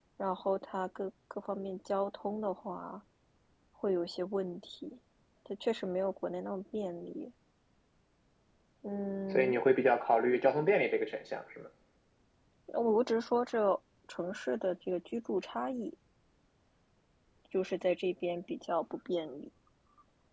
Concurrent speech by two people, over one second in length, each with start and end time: none

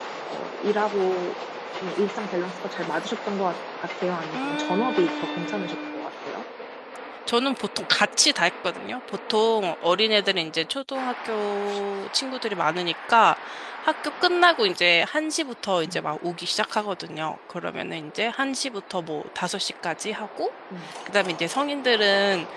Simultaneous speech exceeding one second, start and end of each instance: 4.3-6.0

